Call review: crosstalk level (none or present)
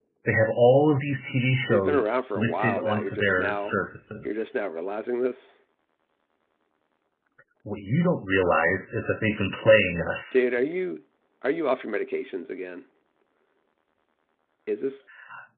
present